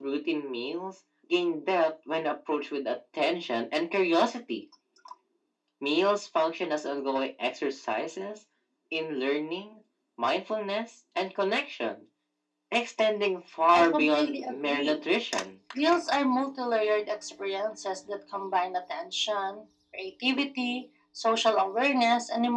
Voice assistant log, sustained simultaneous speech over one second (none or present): present